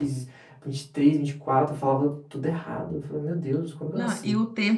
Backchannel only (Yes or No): No